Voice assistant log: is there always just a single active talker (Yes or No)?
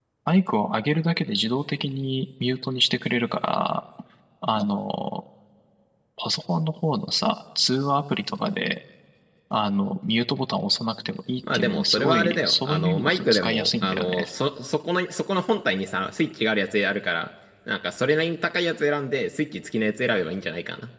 No